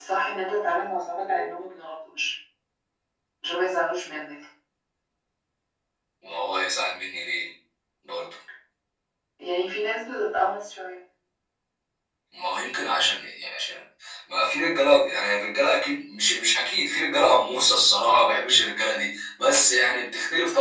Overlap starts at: none

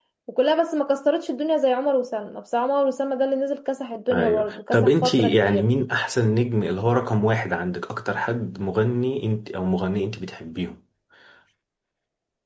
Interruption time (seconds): 4 s

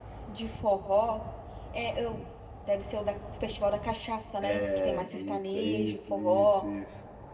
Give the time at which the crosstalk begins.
4 s

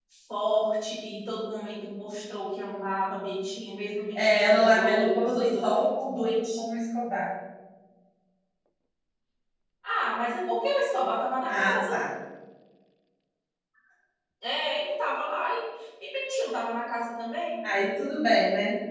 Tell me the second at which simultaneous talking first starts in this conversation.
4 s

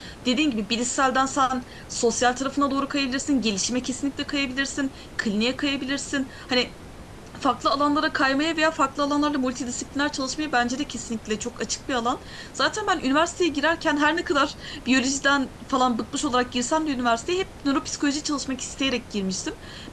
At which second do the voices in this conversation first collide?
none

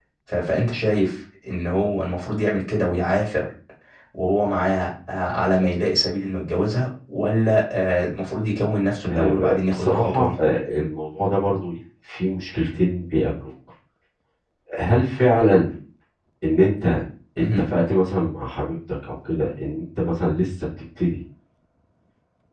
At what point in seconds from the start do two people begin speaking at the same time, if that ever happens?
9 s

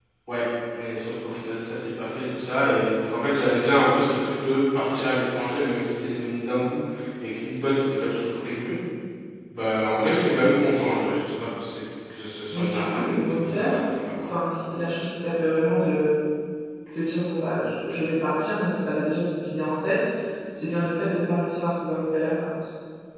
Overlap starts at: 13 s

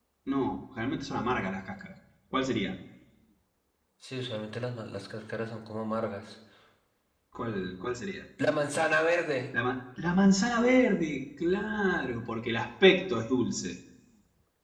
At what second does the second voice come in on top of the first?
none

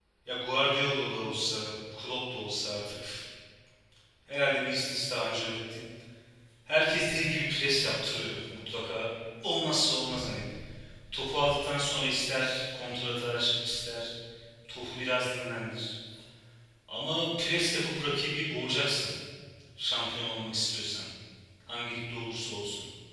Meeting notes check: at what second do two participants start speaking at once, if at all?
none

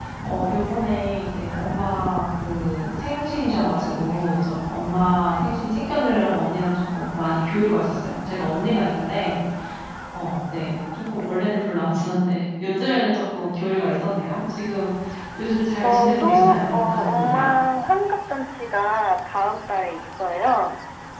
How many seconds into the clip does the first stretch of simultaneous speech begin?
16 s

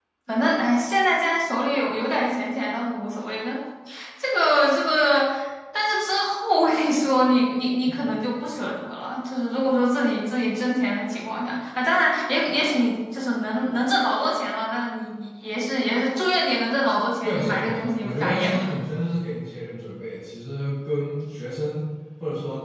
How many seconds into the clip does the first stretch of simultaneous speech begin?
17 s

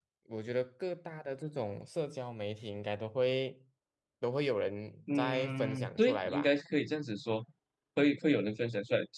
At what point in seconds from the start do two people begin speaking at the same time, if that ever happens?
5 s

